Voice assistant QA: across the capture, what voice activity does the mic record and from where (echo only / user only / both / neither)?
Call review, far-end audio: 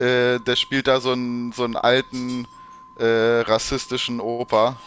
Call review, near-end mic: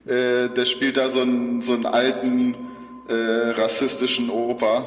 echo only